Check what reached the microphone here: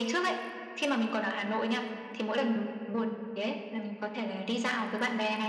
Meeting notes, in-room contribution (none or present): none